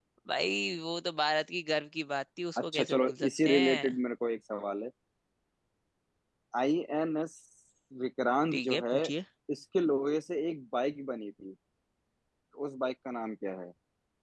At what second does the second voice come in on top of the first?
3 s

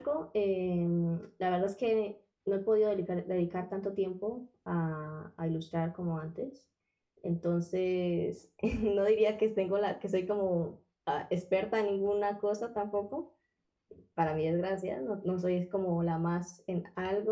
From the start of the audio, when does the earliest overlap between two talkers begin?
none

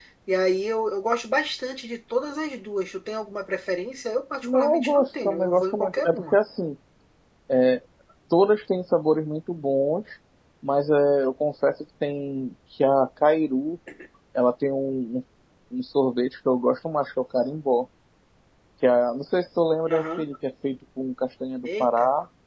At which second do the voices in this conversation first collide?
4 s

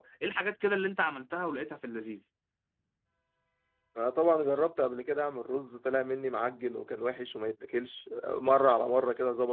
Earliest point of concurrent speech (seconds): none

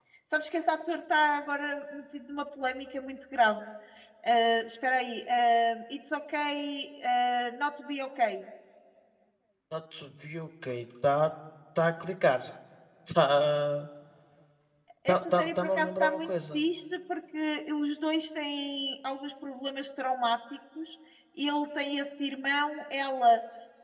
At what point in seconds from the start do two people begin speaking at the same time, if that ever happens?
15 s

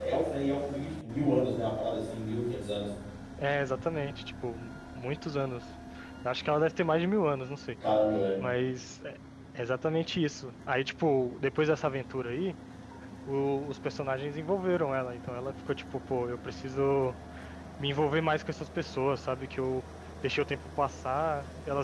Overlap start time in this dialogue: none

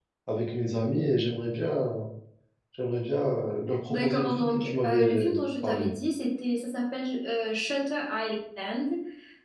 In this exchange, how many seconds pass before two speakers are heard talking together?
4 s

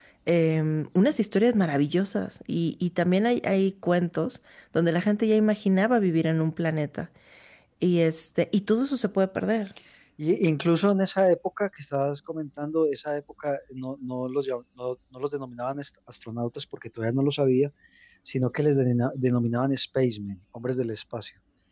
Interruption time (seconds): none

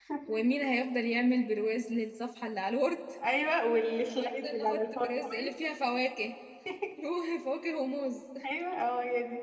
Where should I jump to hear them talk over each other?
4 s

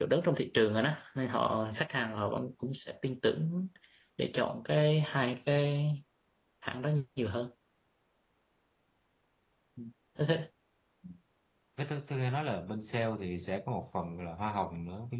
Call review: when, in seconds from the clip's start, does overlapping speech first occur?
none

